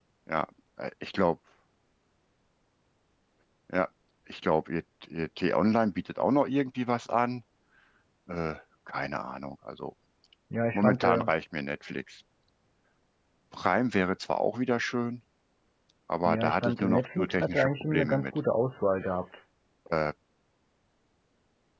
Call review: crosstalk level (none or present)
present